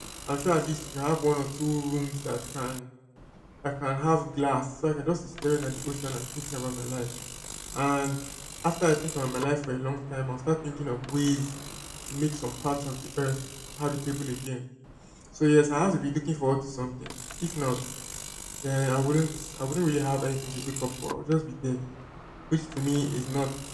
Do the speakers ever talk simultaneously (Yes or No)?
No